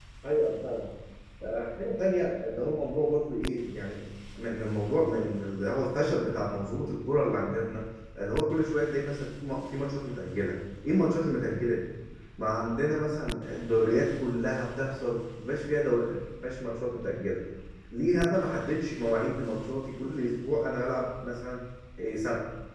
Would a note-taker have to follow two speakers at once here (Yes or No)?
No